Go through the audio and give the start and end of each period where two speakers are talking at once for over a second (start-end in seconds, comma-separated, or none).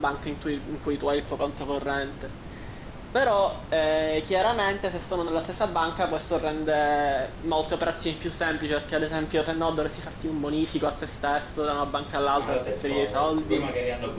12.4-13.6